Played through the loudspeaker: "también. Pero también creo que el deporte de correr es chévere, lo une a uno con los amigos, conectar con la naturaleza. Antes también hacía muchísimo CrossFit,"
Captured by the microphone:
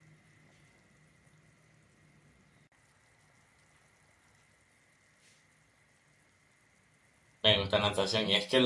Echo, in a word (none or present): none